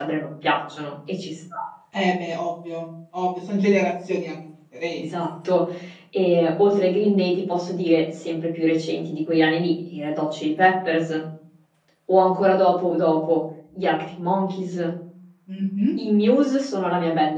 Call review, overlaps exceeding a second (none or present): none